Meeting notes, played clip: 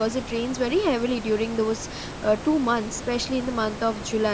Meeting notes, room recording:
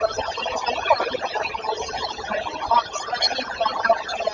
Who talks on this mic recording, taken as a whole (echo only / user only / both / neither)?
echo only